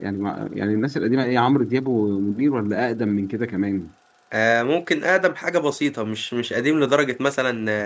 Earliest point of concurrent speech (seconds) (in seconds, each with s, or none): none